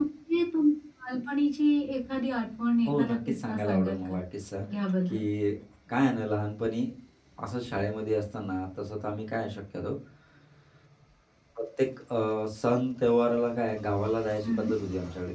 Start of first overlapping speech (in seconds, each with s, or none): 2.9 s